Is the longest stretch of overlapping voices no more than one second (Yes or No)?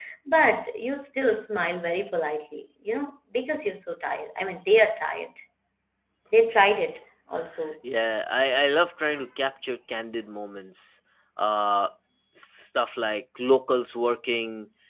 Yes